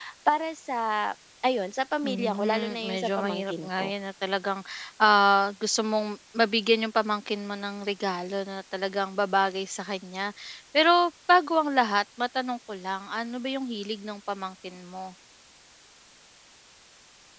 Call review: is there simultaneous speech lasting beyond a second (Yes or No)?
Yes